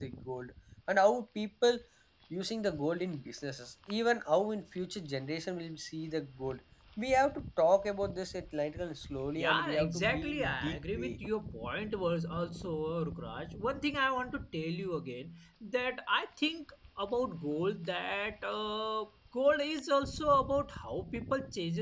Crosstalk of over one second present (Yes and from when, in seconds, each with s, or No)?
Yes, from 9.4 s